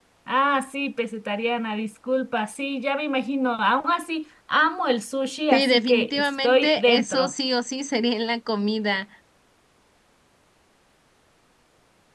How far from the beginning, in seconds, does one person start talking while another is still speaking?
5.5 s

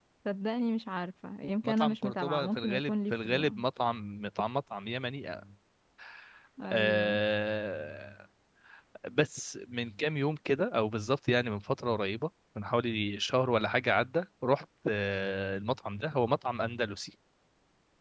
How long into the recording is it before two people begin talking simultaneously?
1.6 s

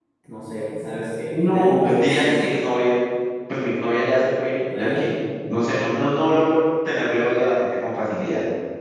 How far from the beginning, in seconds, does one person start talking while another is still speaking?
1.3 s

